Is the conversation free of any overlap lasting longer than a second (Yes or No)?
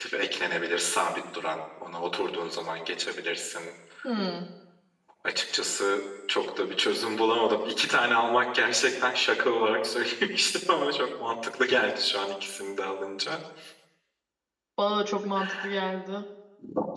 Yes